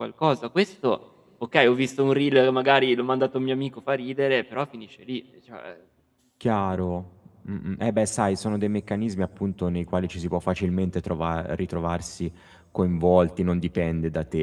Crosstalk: none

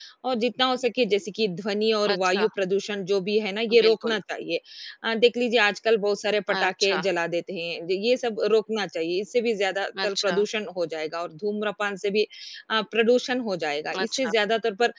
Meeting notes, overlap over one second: none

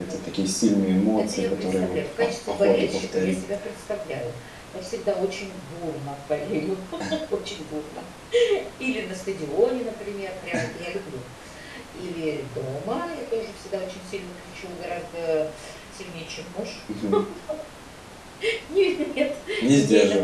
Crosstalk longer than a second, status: present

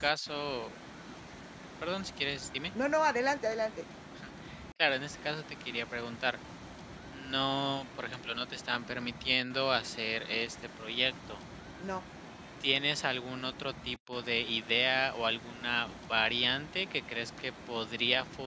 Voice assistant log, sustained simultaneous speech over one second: none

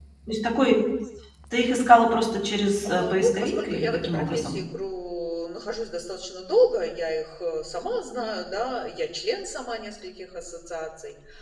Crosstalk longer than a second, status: present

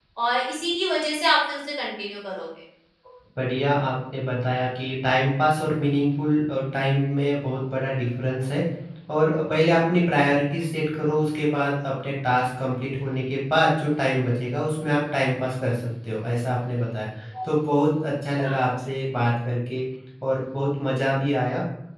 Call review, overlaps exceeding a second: none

